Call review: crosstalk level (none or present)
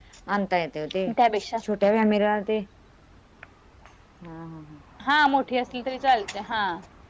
none